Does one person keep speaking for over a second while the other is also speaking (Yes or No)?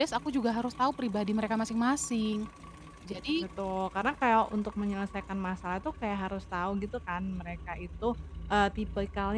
No